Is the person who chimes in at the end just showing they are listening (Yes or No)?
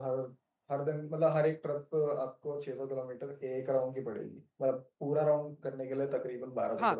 No